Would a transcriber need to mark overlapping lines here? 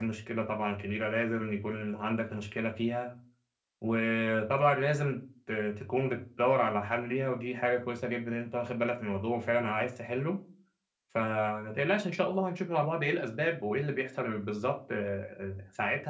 No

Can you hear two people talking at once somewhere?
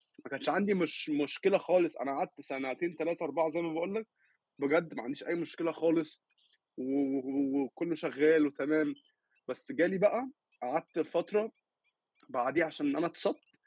No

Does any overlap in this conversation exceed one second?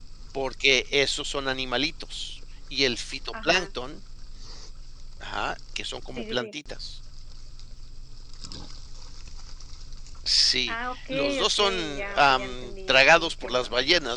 Yes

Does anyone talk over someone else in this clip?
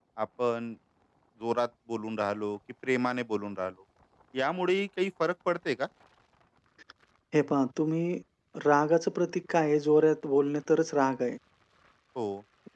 No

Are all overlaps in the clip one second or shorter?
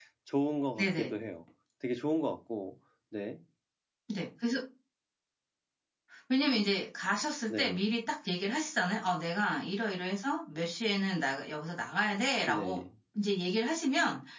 Yes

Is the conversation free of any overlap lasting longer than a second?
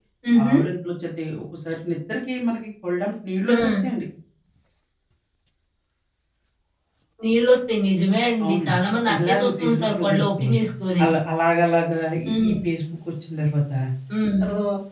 No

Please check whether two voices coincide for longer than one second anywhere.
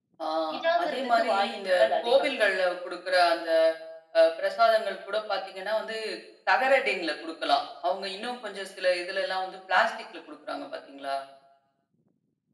Yes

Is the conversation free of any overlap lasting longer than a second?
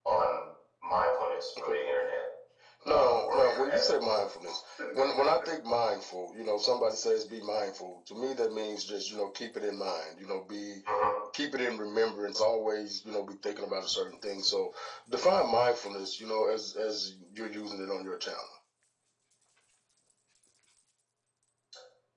No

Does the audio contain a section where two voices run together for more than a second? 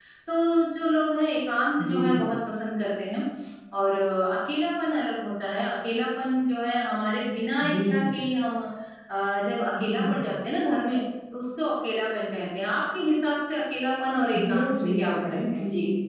Yes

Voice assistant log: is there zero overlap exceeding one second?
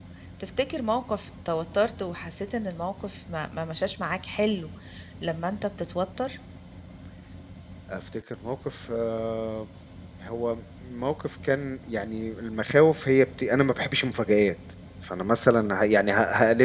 Yes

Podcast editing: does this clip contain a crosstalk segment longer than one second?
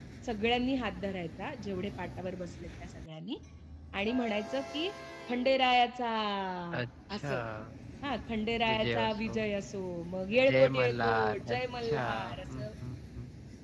Yes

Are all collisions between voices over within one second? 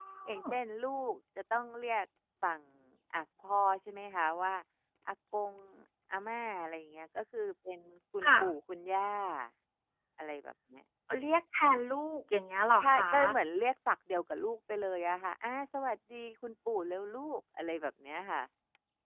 Yes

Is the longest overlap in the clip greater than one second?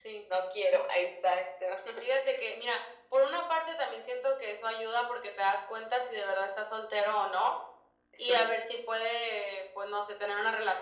No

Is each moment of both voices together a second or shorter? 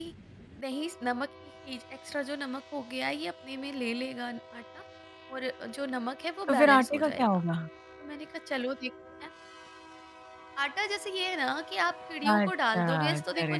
No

